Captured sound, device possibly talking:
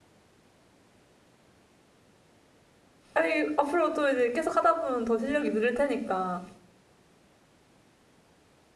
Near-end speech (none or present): present